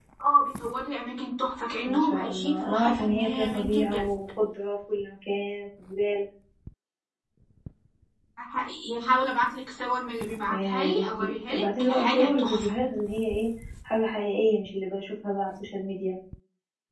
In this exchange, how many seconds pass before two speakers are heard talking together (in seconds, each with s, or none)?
1.8 s